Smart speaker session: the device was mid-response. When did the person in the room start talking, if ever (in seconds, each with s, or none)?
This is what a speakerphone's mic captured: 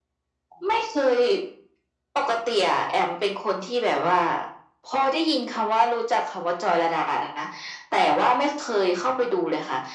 none